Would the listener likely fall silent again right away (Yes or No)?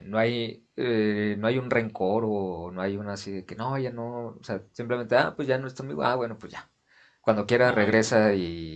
Yes